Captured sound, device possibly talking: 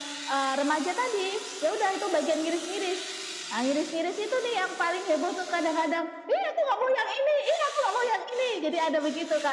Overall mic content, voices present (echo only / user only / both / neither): echo only